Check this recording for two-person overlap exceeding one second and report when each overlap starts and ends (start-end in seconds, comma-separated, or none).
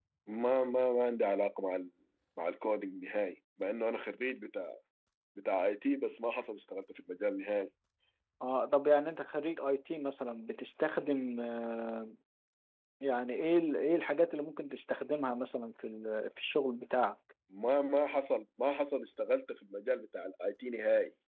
none